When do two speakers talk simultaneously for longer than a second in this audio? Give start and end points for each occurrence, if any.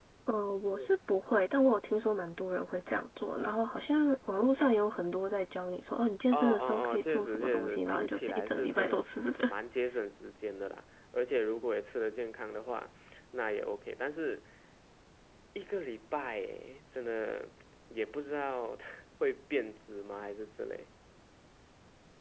6.3-9.0

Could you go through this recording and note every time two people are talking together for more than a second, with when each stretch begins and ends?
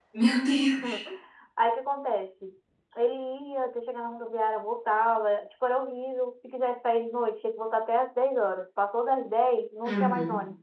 none

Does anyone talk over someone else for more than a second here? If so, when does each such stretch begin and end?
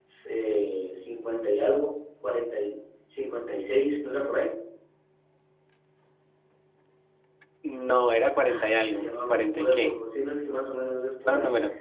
8.6-9.9

